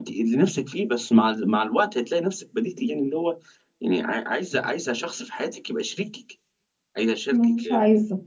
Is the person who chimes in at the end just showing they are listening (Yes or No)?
No